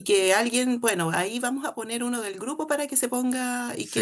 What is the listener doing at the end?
listening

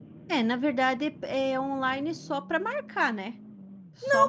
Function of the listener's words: taking over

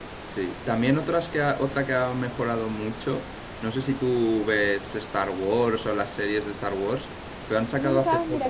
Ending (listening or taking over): taking over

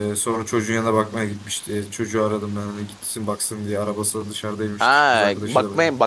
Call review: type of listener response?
taking over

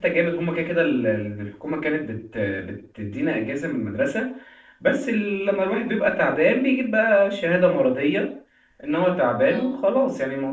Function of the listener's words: listening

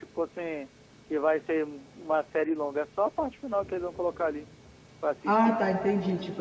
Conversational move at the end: taking over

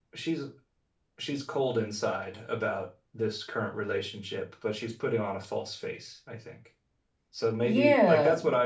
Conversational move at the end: taking over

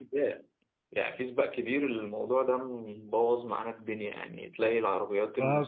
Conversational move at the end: taking over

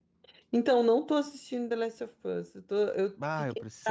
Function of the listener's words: taking over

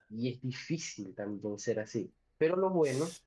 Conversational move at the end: listening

